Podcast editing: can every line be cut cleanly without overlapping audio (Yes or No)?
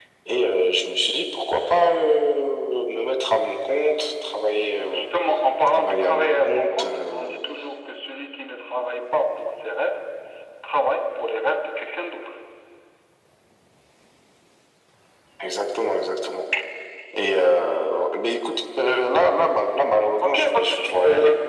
No